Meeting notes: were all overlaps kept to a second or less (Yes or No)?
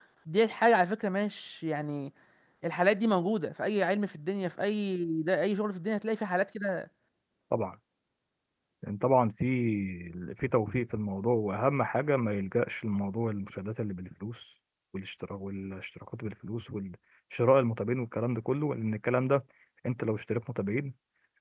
Yes